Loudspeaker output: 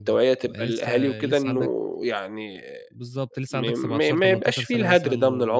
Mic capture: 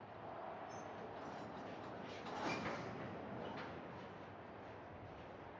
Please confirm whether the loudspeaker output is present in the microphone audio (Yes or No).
No